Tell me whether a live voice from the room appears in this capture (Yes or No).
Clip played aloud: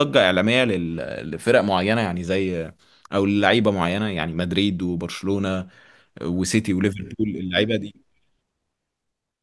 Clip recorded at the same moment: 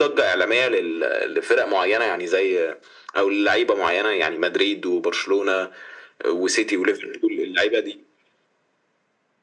No